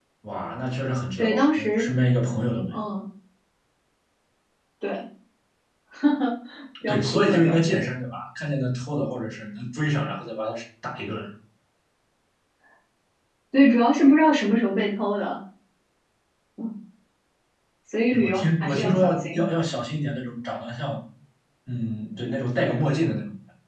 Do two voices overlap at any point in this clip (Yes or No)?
Yes